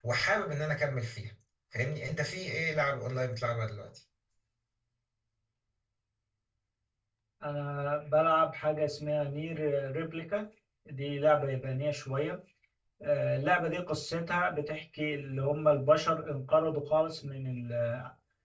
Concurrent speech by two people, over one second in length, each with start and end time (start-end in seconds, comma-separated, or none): none